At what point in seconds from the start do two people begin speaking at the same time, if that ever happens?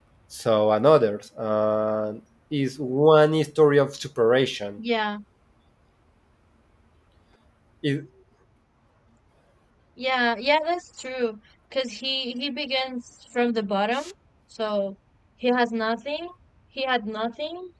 none

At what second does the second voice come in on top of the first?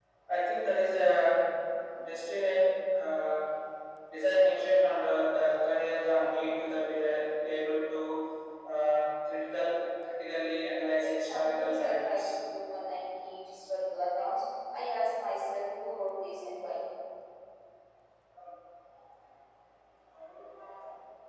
11.0 s

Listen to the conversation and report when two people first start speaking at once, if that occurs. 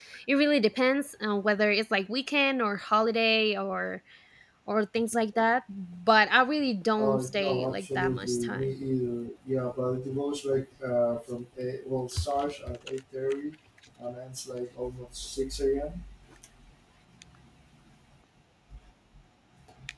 7.0 s

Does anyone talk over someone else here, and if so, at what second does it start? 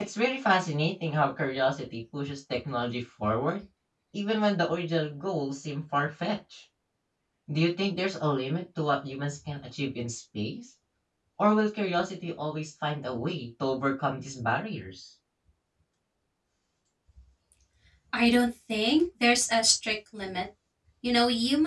none

